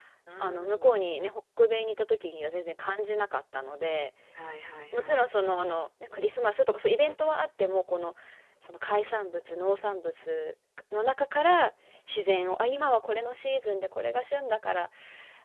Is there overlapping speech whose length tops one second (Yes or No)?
No